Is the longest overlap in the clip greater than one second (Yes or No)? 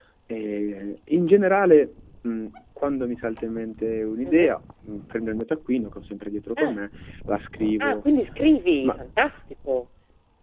No